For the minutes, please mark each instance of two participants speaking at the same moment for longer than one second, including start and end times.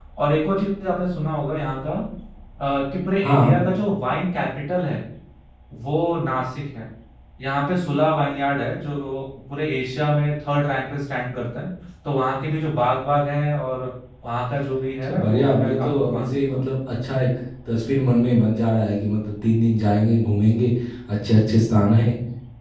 15.1-16.6

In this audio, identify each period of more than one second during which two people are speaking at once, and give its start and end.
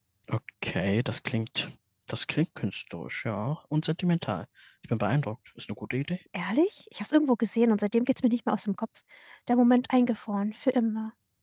none

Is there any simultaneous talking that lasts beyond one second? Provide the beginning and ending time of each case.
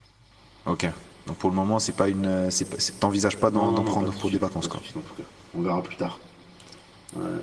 3.5-4.7

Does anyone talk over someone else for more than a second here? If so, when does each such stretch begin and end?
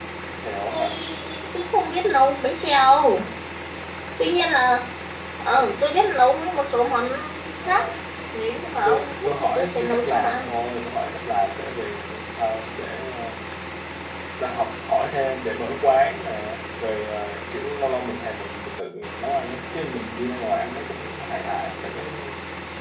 8.8-10.6

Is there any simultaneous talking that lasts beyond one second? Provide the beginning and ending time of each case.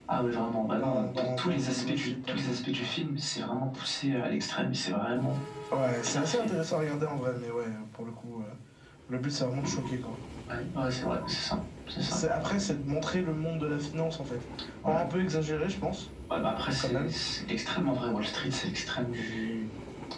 0.7-2.5

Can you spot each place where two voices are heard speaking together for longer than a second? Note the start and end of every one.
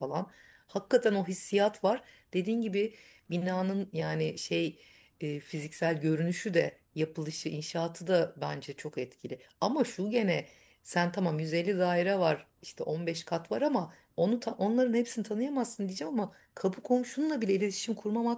none

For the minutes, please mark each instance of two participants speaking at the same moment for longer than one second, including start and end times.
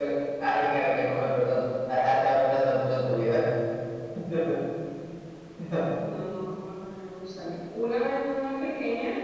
none

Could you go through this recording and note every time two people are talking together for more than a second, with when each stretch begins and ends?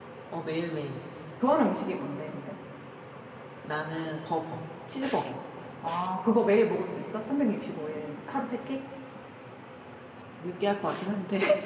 none

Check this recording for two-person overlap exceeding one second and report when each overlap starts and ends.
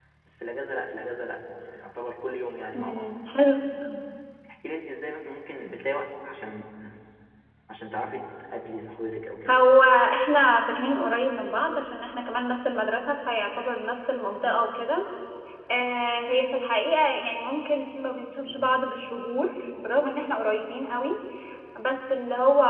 none

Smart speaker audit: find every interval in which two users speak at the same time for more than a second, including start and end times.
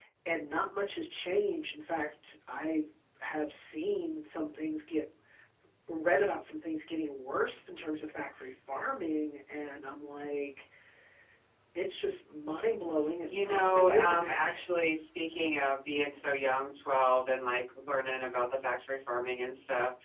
13.3-14.5

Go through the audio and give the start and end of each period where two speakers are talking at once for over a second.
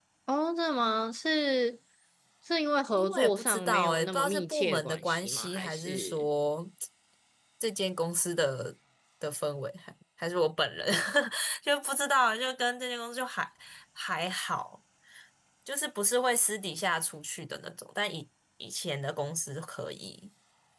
3.0-6.2

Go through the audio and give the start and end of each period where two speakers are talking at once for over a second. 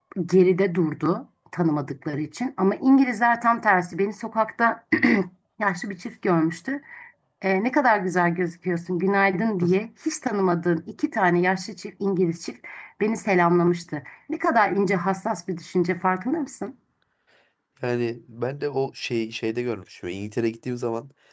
none

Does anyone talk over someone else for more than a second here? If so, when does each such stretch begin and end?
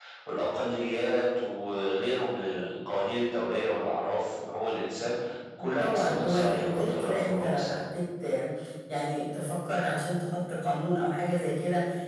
5.8-7.8

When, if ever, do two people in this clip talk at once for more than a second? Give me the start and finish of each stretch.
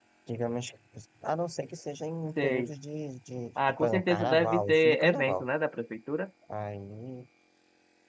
3.7-5.5

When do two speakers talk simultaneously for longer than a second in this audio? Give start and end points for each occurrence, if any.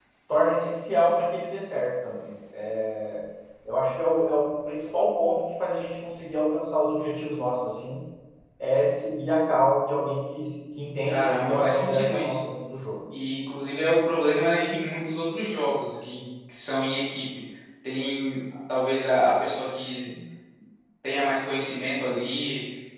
11.1-12.5

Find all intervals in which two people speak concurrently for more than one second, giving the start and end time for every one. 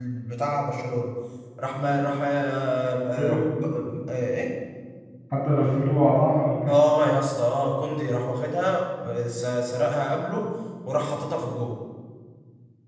none

